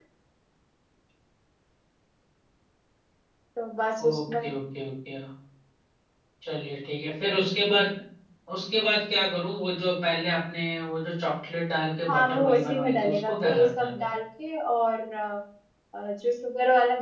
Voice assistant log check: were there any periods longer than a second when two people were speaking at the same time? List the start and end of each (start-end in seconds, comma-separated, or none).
12.1-13.9